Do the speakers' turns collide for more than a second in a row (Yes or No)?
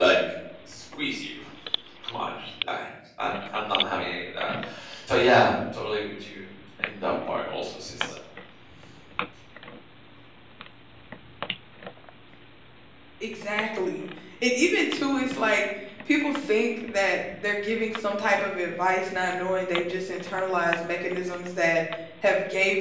No